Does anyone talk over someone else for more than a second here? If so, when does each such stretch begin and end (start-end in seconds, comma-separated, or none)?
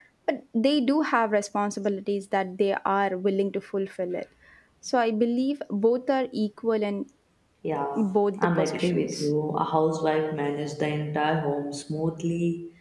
8.0-9.3